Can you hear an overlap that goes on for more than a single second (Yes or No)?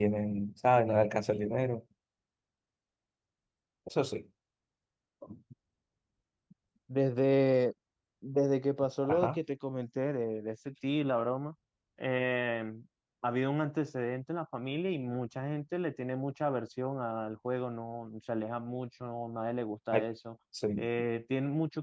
No